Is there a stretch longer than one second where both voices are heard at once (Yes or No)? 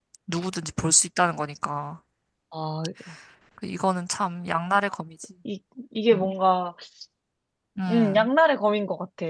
No